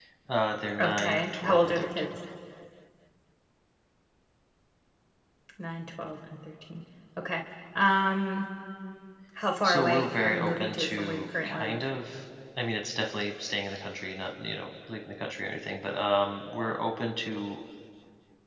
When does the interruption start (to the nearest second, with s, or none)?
1 s